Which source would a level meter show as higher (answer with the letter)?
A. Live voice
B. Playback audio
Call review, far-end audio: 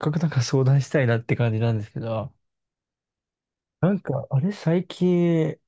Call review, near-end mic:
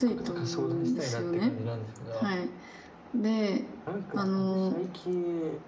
A